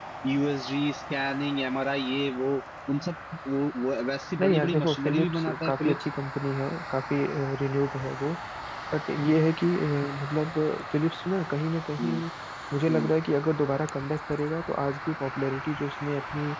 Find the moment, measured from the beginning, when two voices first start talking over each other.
4 s

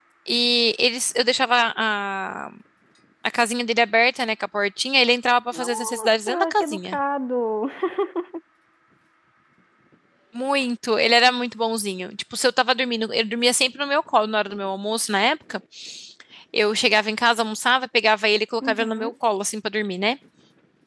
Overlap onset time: 6 s

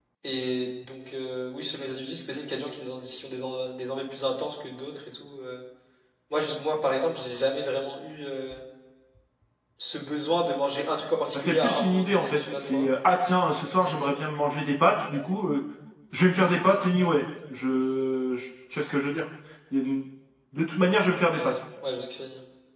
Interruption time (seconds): 11 s

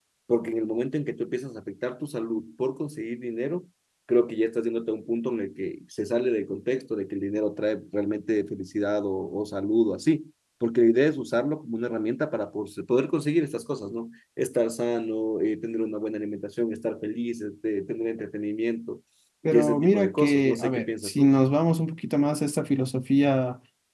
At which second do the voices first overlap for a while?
19 s

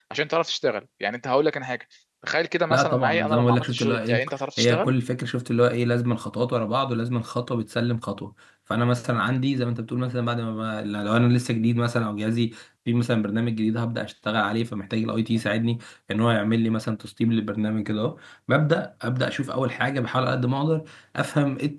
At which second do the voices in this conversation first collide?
3 s

